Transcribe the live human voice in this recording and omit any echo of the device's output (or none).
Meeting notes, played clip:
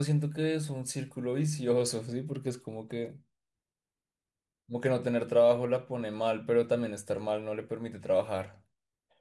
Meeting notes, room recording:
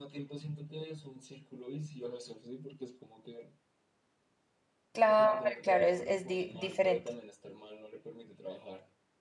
Claro, claro, es, es di- diferente.